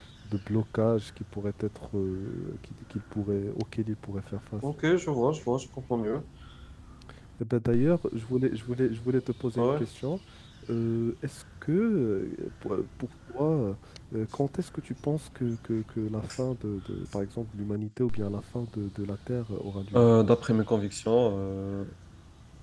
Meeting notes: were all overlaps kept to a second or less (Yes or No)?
Yes